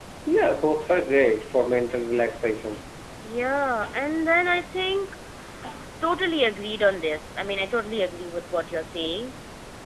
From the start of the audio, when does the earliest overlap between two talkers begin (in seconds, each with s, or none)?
none